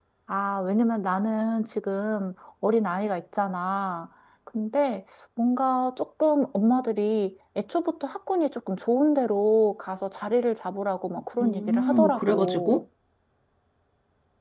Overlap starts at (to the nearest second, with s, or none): 11 s